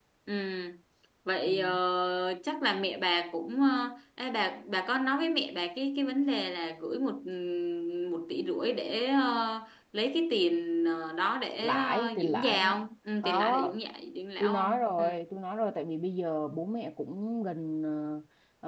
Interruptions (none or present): present